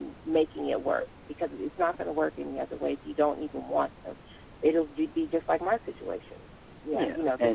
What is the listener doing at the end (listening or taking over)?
taking over